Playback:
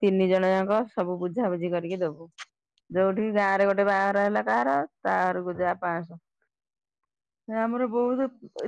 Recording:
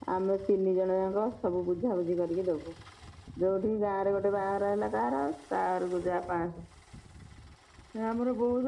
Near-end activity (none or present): none